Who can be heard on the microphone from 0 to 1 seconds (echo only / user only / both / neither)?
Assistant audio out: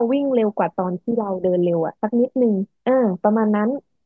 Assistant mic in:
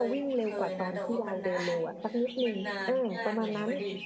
both